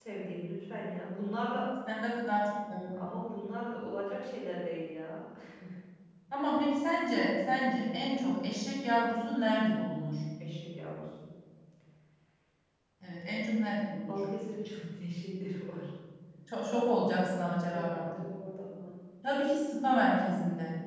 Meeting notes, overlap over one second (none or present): none